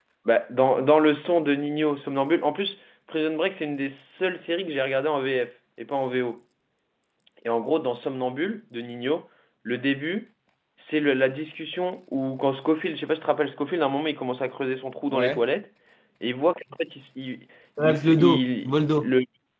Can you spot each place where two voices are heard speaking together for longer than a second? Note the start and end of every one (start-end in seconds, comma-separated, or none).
17.8-19.1